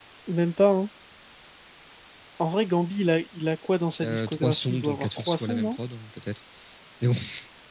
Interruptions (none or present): present